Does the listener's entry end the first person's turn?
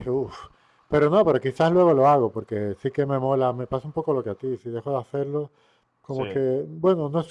No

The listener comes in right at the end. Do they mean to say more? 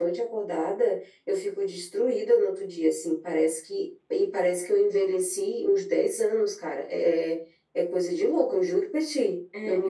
Yes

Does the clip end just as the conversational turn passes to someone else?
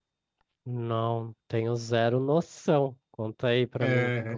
Yes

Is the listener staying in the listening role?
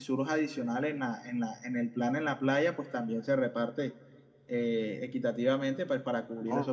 No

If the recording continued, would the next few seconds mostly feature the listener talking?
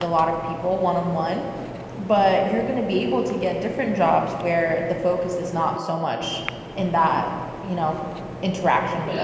Yes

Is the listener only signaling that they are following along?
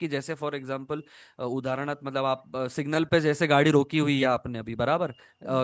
Yes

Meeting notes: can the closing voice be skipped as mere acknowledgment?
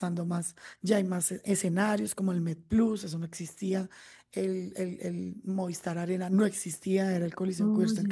Yes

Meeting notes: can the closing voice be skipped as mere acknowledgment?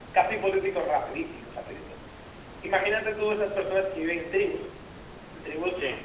Yes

